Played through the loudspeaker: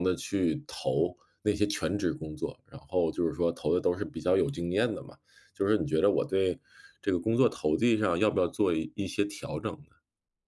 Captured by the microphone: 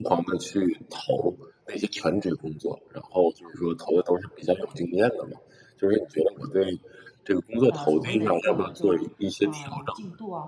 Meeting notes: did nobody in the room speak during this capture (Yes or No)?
No